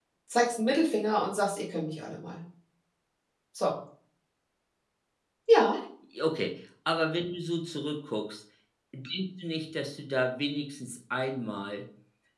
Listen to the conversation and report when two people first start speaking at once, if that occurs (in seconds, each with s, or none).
none